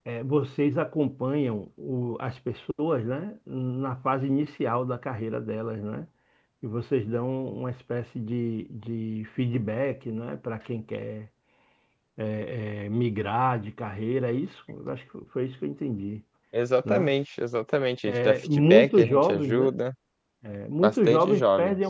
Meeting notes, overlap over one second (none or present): present